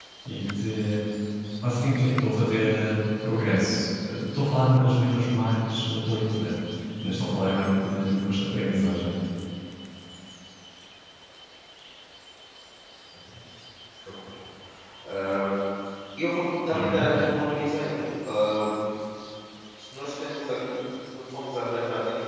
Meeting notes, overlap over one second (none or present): none